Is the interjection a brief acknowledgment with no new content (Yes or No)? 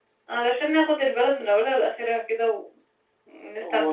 No